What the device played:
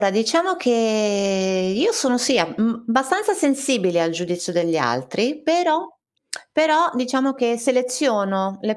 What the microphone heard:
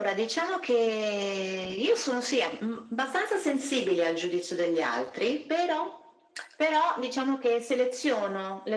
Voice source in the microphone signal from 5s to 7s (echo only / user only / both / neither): echo only